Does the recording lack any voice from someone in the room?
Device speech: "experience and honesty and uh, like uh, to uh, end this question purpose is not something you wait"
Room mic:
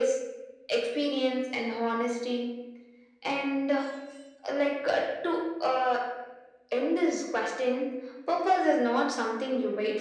Yes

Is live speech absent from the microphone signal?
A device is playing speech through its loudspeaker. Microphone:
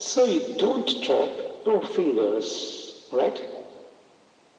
Yes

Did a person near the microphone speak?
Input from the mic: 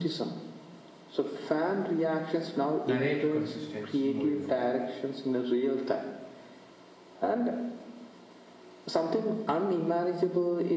Yes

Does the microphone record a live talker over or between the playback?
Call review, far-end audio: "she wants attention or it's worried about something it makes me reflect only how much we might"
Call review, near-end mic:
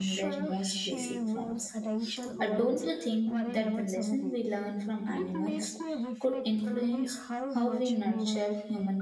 Yes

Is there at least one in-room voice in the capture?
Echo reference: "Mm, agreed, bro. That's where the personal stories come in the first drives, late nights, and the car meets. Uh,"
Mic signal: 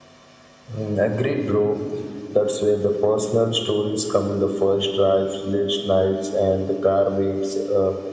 No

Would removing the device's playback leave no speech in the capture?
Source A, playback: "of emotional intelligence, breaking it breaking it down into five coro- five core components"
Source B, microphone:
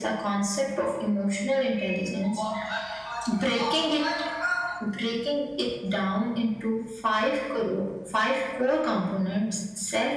Yes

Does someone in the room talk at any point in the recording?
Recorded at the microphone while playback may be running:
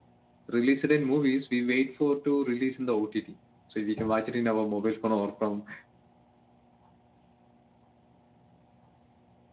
Yes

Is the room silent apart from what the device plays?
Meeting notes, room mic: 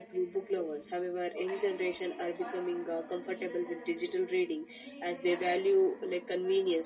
No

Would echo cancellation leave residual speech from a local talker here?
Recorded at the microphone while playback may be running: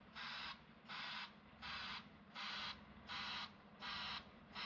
No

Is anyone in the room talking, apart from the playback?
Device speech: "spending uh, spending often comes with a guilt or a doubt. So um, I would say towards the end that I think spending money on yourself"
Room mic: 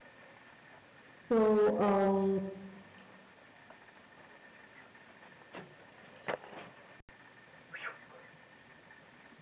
Yes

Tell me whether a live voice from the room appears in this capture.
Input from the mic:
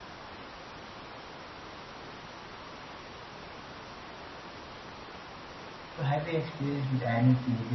Yes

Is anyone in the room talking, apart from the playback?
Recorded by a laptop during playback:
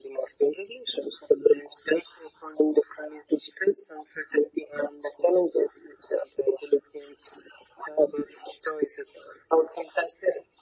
No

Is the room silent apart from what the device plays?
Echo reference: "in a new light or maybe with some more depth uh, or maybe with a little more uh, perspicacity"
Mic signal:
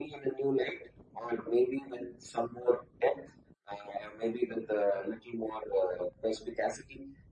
Yes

